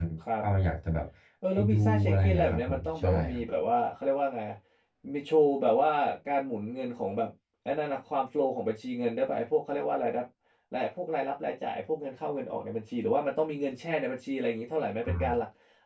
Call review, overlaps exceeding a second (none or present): present